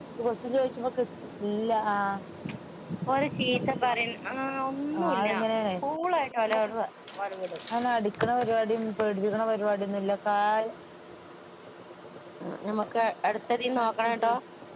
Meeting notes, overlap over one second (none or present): none